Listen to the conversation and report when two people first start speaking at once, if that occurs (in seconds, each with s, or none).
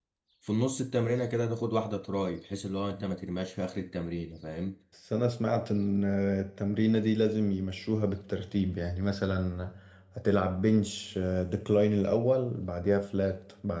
none